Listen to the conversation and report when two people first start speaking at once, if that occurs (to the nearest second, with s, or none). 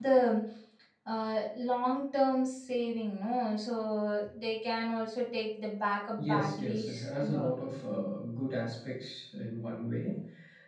6 s